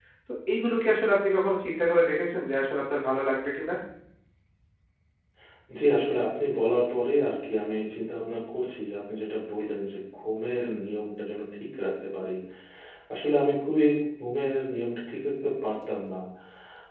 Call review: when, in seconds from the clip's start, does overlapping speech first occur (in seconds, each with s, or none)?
none